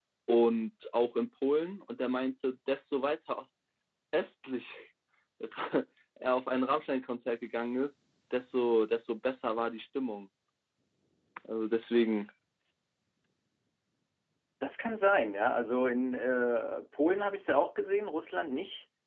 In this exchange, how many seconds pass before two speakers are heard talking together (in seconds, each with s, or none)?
none